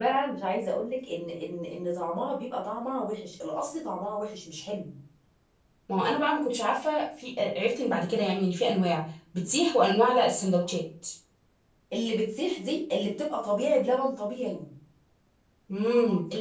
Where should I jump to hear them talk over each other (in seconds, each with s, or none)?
none